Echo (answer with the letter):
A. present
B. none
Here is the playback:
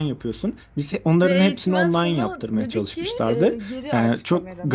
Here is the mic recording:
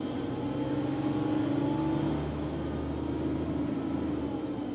B